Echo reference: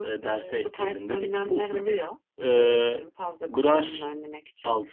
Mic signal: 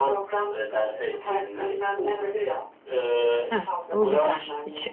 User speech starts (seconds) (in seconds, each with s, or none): 3.5 s